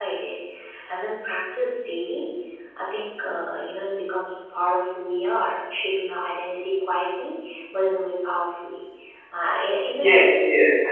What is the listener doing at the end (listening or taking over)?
taking over